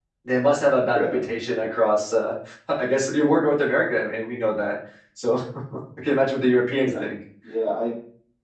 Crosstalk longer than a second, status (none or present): none